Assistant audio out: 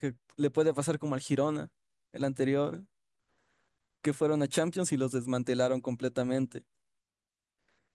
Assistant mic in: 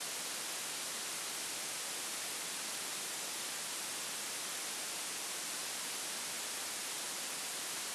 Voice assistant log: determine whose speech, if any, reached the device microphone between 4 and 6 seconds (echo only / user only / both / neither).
neither